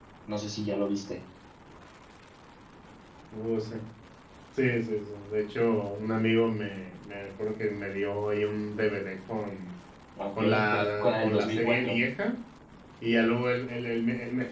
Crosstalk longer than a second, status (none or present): present